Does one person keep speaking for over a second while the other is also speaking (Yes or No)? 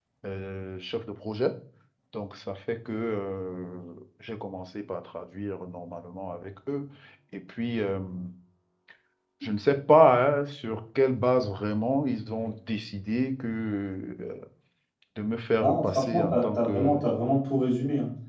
Yes